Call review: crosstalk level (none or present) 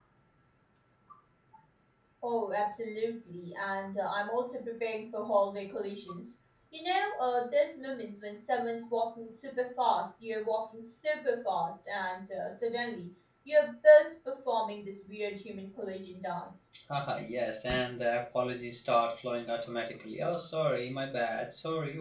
none